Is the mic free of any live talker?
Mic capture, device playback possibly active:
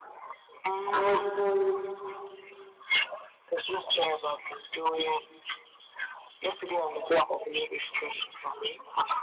No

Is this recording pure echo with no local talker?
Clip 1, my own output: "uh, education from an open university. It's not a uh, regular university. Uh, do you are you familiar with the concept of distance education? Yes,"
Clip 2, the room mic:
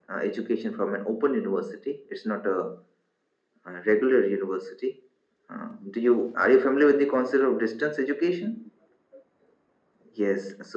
Yes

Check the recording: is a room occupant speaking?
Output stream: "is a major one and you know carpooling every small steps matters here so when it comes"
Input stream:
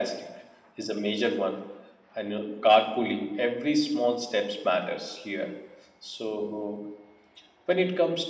No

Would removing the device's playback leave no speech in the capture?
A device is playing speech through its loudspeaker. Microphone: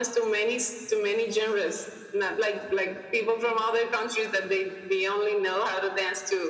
Yes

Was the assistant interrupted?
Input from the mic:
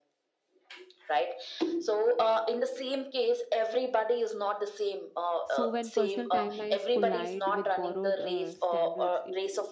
Yes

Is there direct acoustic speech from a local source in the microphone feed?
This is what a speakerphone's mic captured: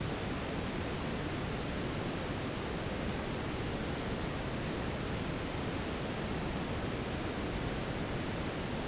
No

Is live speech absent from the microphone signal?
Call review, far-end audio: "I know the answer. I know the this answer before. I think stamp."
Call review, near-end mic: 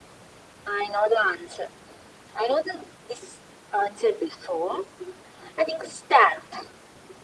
Yes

